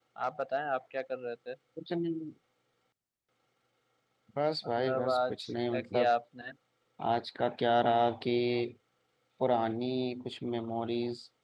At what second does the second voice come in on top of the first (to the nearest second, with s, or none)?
5 s